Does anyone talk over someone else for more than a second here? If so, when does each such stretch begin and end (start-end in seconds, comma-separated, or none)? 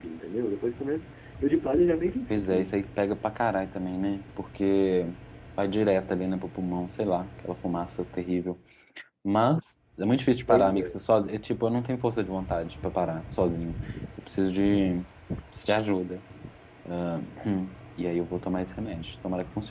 none